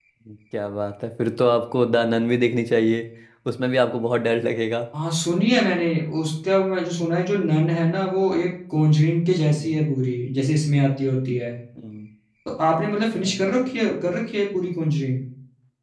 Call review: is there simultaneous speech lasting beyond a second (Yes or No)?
No